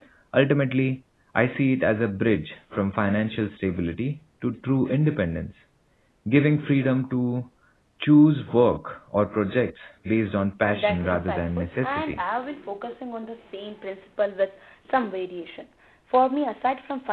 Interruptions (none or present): present